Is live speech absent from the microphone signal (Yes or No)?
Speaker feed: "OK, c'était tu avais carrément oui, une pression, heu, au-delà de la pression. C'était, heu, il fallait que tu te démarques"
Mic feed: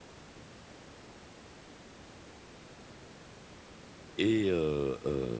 No